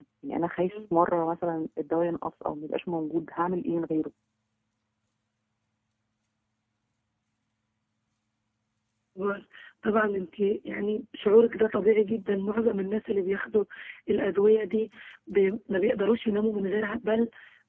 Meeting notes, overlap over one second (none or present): none